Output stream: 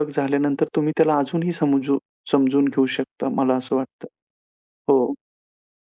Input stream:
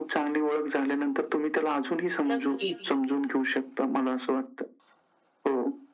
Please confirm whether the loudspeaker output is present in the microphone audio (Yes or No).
Yes